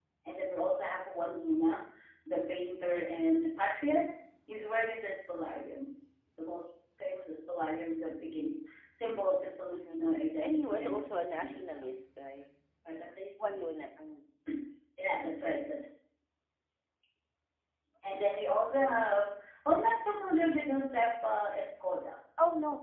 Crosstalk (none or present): present